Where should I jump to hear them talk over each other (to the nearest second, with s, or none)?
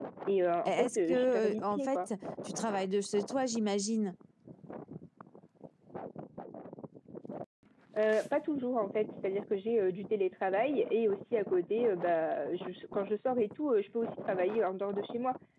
1 s